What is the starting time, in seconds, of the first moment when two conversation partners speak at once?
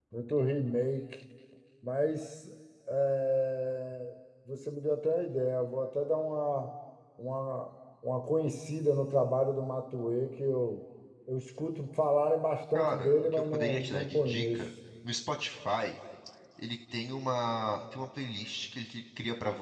12.7 s

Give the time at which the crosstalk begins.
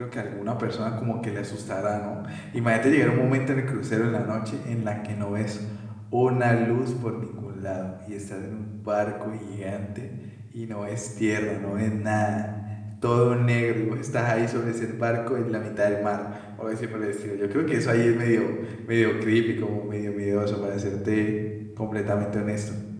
none

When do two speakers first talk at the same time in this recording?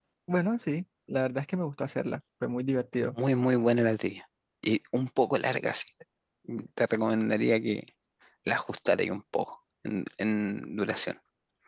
none

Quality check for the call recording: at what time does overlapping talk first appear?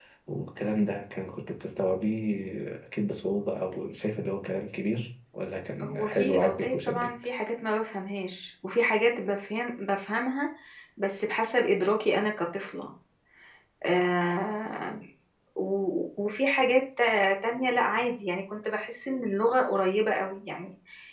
5.8 s

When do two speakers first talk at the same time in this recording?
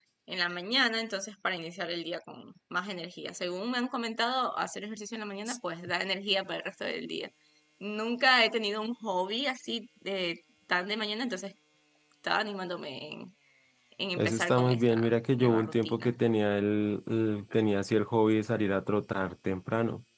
14.2 s

